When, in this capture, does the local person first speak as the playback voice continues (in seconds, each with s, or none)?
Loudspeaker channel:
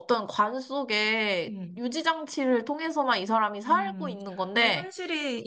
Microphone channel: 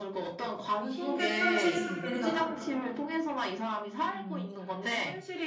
0.8 s